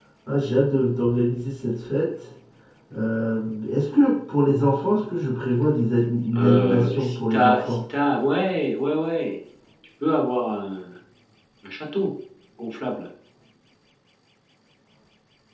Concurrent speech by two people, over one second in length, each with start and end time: 6.3-7.8

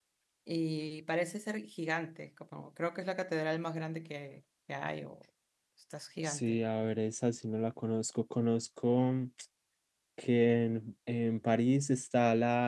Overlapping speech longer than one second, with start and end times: none

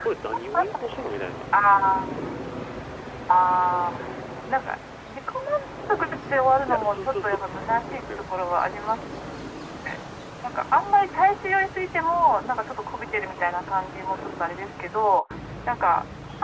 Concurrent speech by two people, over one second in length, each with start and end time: 6.7-8.0

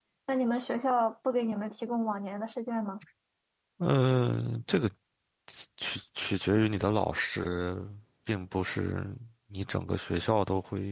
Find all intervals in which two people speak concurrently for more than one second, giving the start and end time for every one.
none

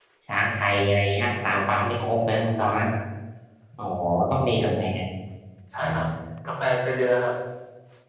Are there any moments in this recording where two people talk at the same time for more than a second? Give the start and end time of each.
none

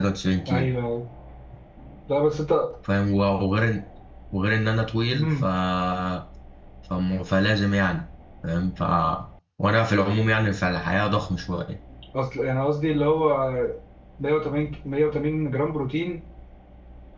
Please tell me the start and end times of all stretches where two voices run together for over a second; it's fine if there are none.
none

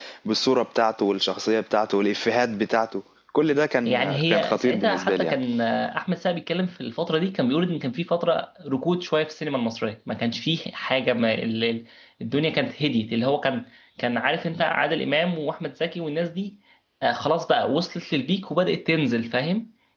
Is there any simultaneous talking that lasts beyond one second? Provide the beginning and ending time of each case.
3.9-5.3

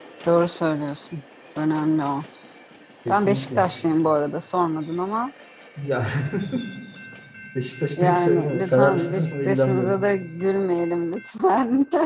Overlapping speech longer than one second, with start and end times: 8.0-10.0

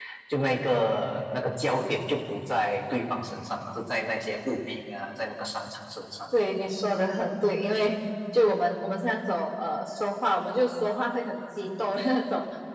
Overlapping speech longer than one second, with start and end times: none

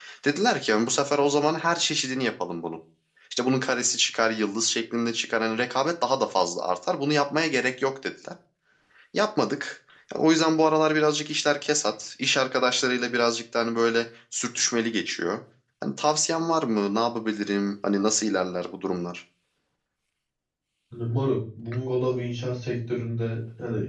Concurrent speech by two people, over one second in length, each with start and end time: none

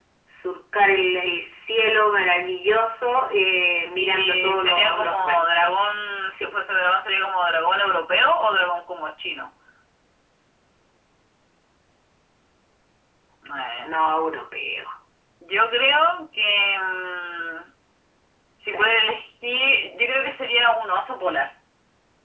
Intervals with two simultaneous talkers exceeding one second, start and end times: 4.0-5.7

